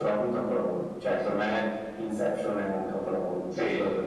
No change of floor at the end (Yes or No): No